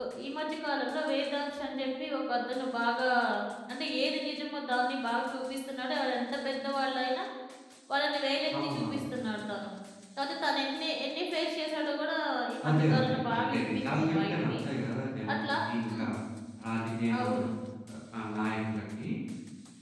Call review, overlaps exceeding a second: present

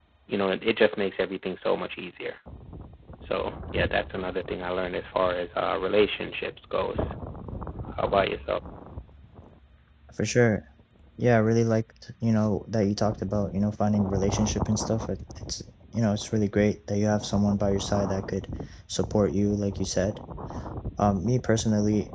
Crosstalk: none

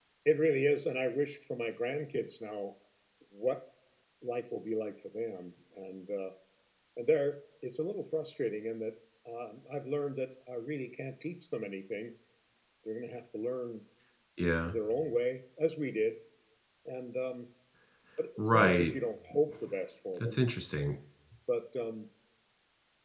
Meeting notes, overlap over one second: none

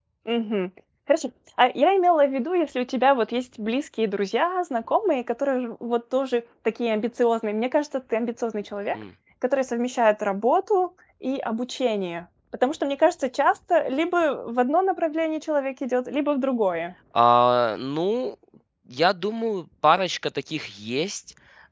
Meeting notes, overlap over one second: none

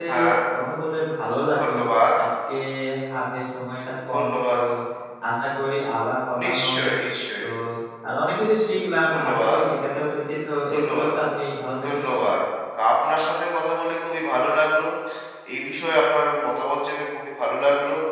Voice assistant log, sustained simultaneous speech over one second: none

